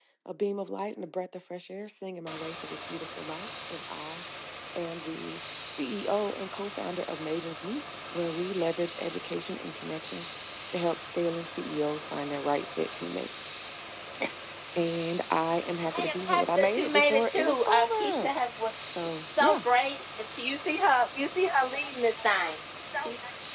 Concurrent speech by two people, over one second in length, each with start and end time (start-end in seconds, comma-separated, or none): 15.9-18.3